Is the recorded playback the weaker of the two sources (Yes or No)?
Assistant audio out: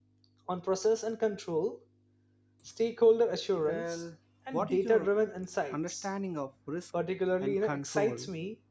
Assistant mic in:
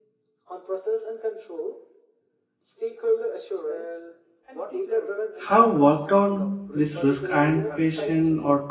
Yes